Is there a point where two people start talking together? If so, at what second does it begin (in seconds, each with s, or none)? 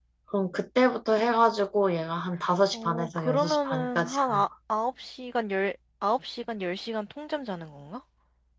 2.7 s